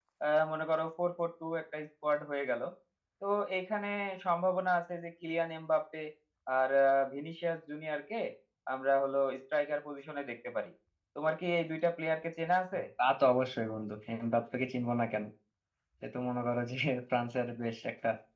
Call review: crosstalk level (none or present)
none